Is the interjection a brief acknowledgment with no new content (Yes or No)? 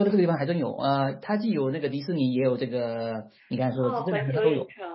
No